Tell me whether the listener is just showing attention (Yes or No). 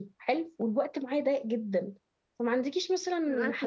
Yes